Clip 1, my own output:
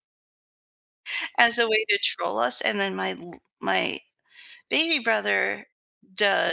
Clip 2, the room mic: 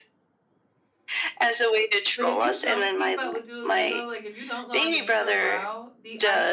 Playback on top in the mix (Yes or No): Yes